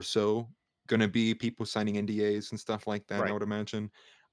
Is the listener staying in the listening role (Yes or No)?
Yes